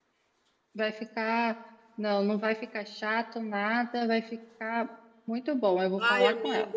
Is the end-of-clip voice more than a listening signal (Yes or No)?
Yes